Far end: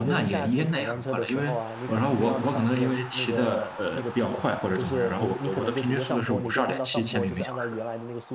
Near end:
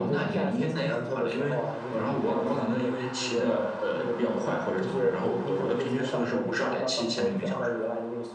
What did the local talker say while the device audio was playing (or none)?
none